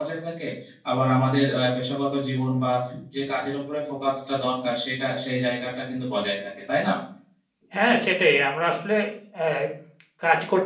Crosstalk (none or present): none